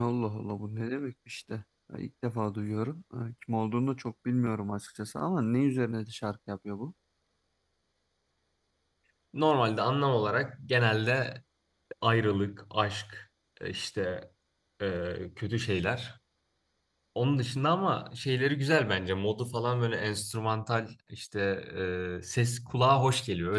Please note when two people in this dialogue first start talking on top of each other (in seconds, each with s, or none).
none